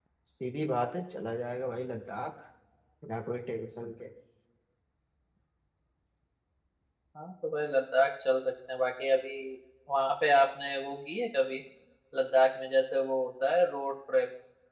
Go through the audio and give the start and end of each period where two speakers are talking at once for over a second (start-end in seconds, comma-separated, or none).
none